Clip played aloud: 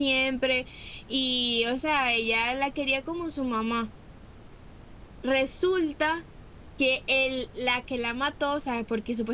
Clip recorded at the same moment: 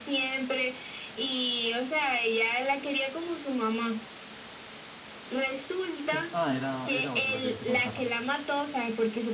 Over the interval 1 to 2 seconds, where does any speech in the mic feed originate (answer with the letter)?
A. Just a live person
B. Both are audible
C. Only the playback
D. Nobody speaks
C